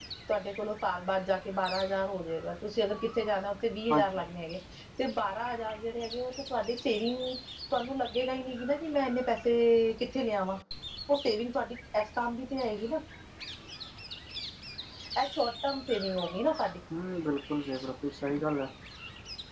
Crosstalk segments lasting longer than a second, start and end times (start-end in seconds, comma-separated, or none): none